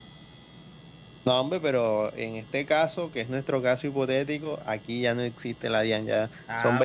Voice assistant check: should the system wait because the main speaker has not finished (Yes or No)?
No